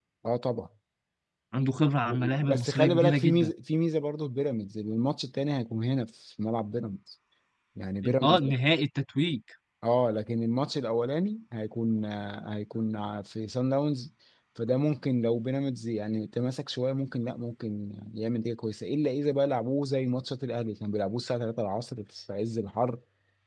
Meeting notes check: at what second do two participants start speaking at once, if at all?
2.0 s

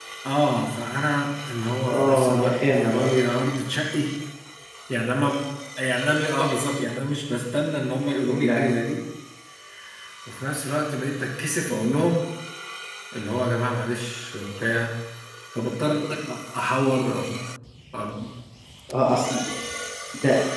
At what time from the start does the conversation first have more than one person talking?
1.9 s

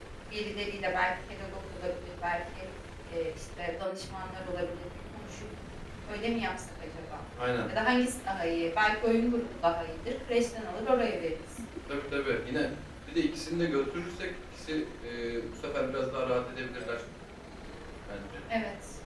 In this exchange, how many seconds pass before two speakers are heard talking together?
none

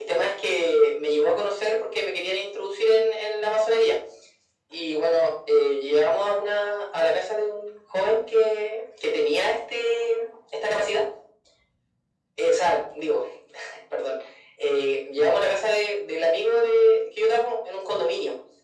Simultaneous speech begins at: none

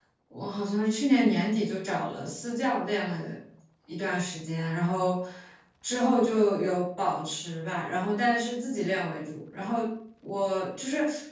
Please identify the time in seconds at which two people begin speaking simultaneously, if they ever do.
none

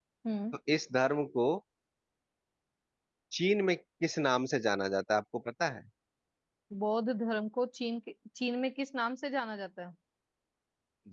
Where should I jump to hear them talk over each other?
none

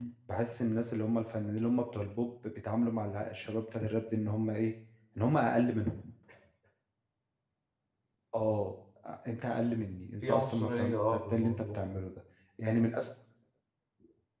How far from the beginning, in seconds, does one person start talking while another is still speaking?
10.2 s

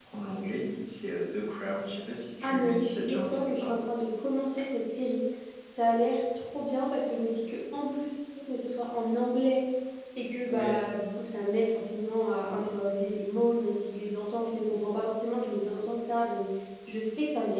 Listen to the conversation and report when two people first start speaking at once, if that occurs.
2.4 s

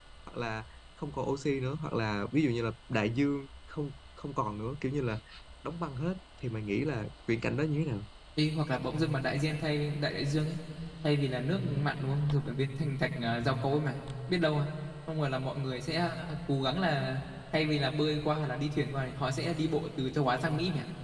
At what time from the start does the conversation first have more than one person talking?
none

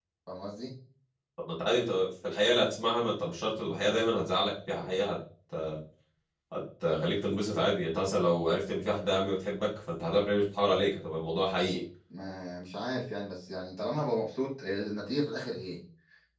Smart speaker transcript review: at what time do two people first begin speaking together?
none

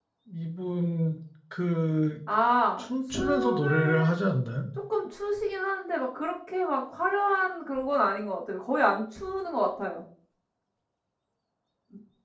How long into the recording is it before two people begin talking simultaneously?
2.8 s

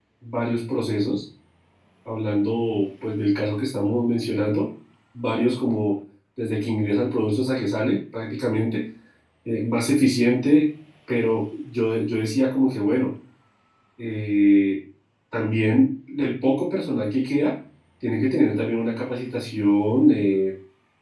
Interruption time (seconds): none

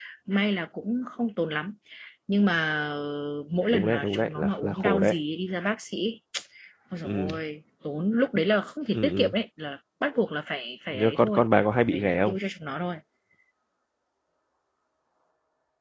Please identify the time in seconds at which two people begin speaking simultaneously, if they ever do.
3.7 s

